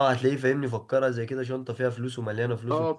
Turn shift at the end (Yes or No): Yes